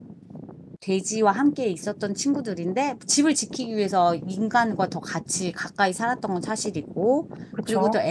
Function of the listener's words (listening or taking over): listening